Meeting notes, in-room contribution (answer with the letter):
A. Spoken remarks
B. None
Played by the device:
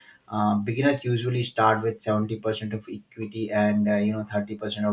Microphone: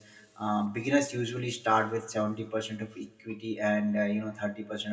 B